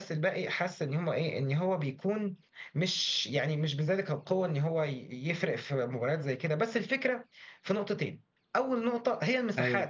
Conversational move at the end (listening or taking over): listening